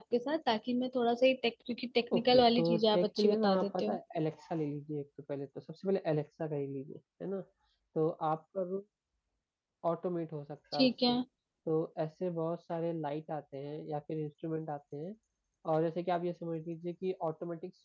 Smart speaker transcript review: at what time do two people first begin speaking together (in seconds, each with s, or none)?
2.1 s